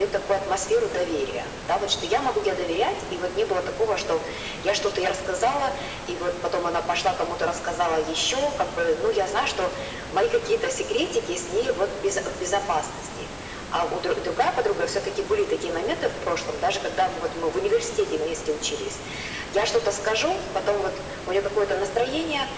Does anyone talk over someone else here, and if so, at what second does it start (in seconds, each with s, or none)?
none